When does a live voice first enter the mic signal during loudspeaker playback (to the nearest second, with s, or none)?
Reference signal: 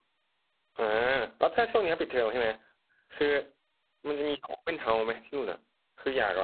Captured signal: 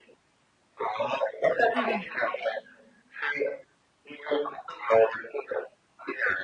2 s